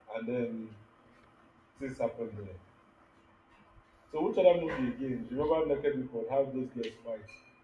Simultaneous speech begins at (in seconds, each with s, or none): none